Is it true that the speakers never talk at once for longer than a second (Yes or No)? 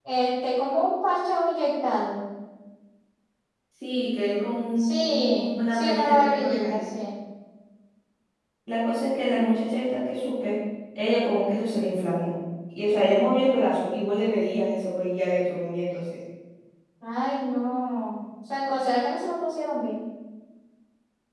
No